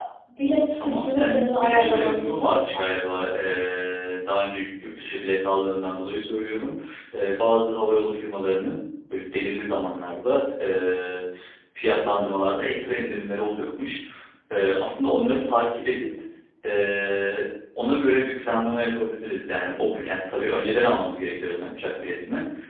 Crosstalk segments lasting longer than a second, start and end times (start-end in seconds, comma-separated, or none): 0.8-3.3